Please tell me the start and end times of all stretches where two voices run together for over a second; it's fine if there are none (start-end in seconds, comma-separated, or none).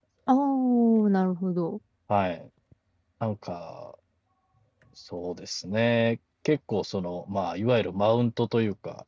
none